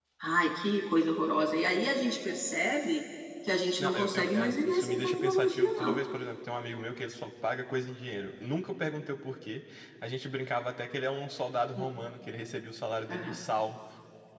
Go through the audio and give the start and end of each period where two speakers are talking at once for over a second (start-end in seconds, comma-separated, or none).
3.6-6.0